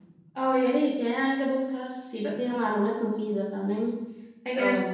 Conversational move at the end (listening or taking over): listening